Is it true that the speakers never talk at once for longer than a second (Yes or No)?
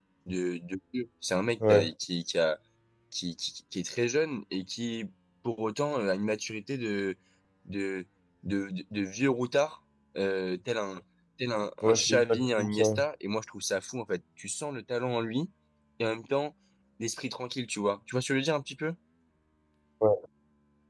No